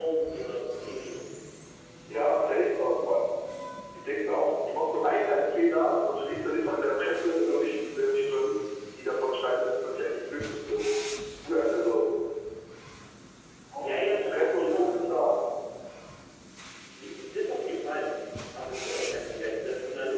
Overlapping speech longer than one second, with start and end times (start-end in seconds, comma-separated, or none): 13.8-15.2